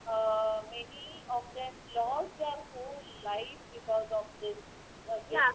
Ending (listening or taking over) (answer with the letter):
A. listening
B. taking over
B